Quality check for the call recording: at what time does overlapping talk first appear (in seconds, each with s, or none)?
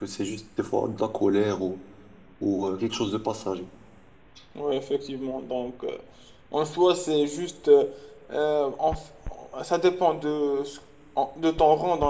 none